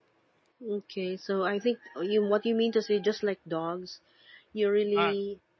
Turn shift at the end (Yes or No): No